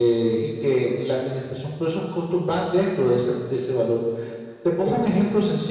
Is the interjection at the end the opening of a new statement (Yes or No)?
Yes